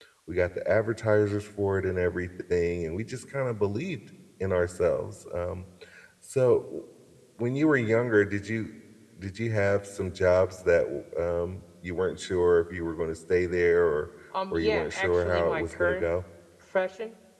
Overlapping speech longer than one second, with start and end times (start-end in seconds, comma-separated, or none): 14.5-16.0